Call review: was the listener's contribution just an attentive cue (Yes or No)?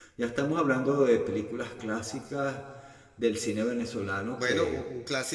No